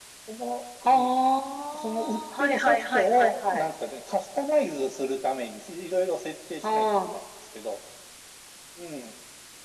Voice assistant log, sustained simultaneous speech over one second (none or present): present